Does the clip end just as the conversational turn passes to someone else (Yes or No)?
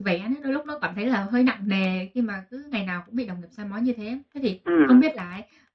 No